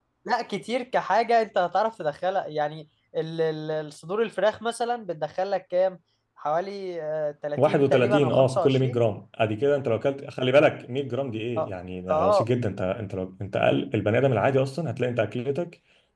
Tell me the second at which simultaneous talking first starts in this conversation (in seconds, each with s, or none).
7.6 s